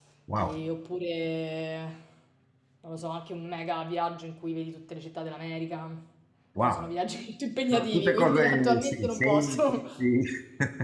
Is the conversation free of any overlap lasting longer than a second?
No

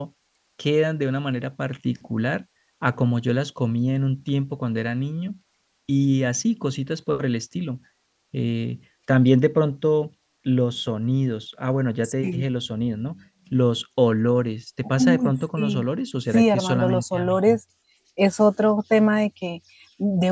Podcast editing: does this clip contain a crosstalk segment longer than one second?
Yes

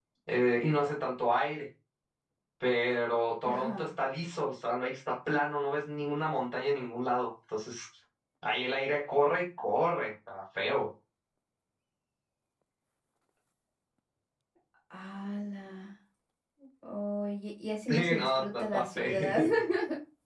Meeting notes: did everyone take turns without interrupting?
No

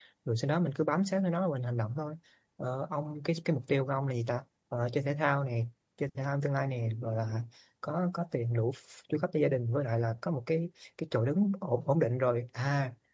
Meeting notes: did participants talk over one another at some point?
No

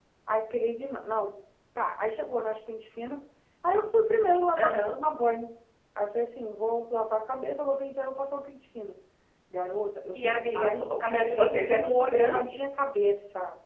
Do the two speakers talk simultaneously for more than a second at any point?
Yes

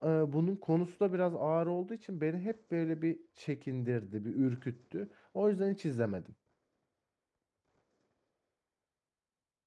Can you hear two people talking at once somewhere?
No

